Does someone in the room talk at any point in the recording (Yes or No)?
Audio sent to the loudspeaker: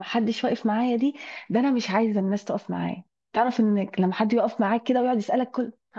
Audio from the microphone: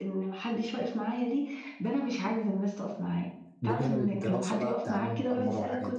Yes